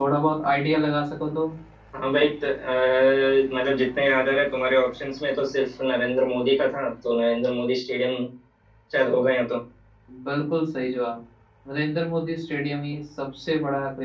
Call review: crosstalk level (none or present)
none